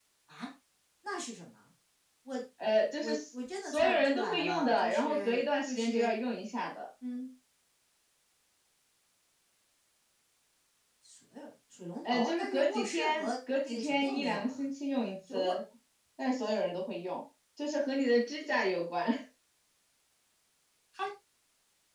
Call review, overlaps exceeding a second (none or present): present